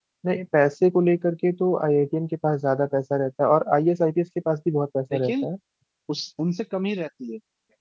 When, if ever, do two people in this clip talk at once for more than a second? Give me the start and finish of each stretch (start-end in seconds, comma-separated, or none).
none